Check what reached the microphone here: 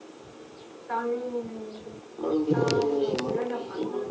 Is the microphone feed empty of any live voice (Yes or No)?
No